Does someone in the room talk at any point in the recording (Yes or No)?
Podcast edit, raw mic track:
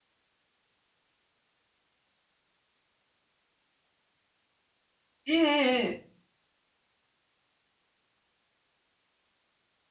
Yes